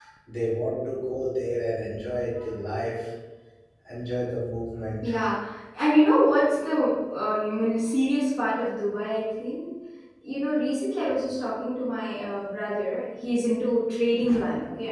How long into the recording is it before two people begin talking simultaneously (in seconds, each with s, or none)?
none